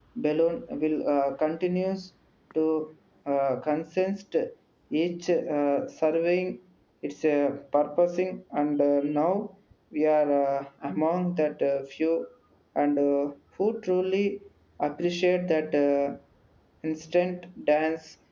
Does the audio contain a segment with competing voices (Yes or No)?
No